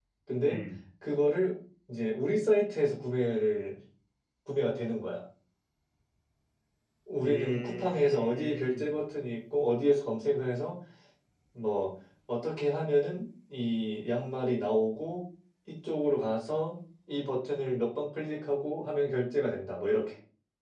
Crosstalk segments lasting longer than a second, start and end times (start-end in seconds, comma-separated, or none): 7.2-8.9